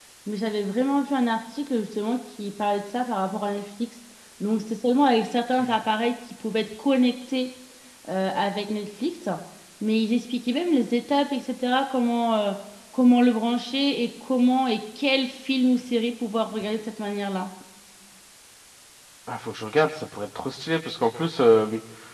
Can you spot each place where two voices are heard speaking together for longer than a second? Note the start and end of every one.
none

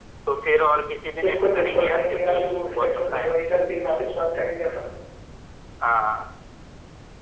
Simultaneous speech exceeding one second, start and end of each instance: 1.2-3.7

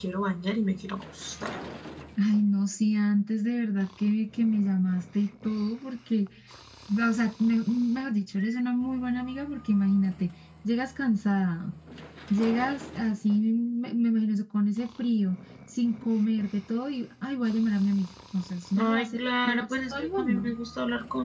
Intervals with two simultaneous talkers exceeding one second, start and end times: 18.7-20.5

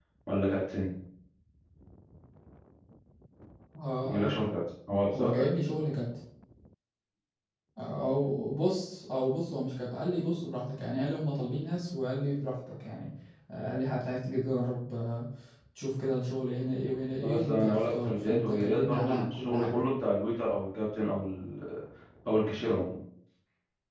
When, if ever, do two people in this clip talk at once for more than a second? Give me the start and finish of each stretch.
17.2-19.8

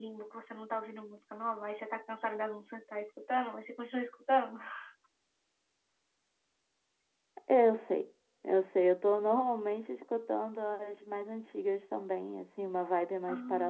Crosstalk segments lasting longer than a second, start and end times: none

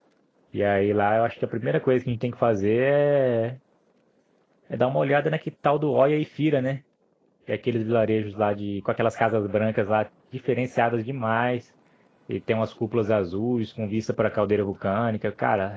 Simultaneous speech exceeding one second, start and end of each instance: none

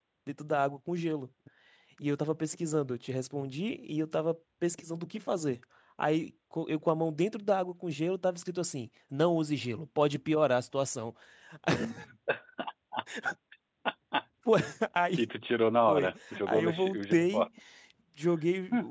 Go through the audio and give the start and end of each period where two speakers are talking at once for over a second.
15.9-17.5

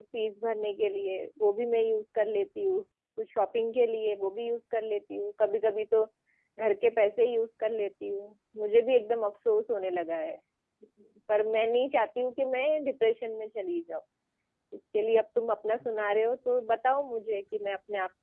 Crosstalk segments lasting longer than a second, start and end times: none

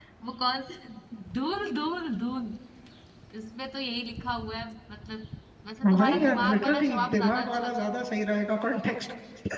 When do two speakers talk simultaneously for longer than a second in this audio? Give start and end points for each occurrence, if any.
5.8-7.9

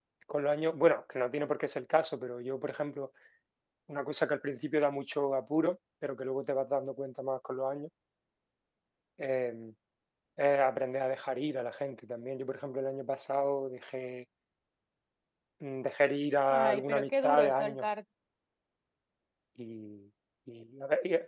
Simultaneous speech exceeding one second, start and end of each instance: 16.5-17.8

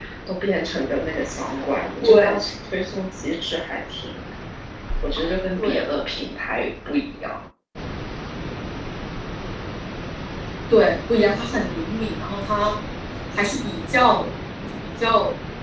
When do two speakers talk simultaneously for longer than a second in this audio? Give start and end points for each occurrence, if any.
none

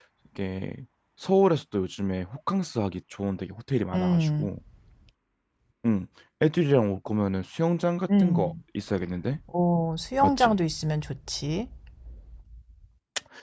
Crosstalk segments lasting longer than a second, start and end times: none

